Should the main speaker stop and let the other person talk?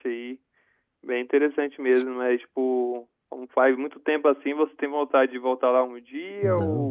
Yes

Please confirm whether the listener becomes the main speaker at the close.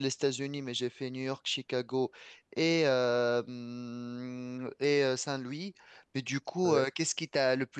No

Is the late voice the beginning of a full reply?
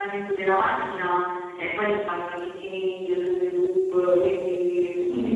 No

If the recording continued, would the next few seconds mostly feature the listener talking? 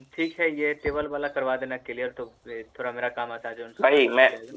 Yes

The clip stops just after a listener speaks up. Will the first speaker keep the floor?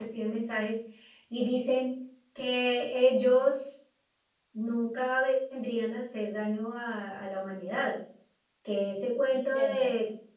Yes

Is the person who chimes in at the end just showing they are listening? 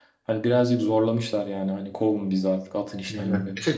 No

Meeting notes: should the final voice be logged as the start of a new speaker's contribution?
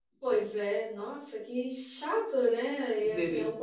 No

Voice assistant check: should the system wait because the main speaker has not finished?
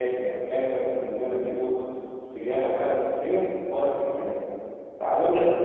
Yes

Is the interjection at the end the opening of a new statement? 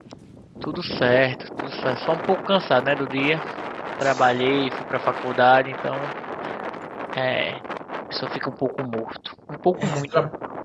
Yes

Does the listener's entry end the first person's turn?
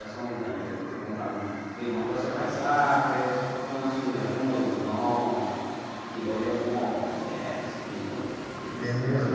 Yes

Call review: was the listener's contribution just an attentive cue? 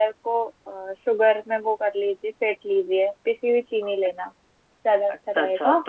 No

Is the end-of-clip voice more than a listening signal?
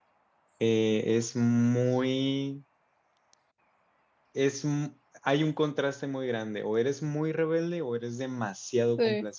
No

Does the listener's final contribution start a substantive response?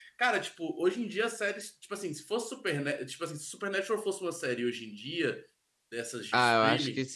Yes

